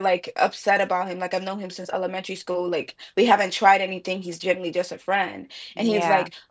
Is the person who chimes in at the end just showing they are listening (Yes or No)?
Yes